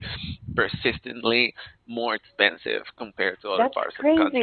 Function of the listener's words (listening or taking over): taking over